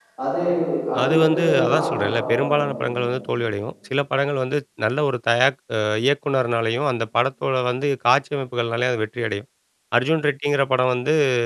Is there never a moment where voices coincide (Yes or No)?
No